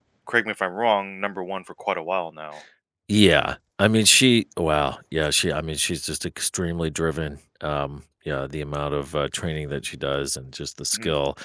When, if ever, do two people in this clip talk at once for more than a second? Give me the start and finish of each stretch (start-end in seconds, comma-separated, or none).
none